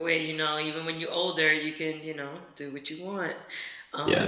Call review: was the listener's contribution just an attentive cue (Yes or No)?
No